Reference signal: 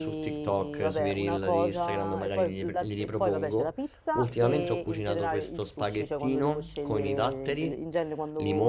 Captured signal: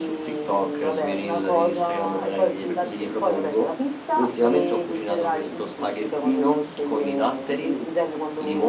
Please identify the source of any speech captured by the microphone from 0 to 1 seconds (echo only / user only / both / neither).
echo only